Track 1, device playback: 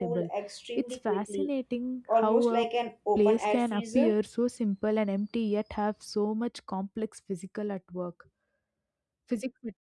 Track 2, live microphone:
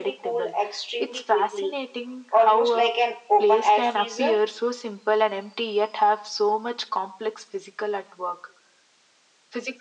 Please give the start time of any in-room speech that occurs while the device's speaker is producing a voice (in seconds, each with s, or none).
none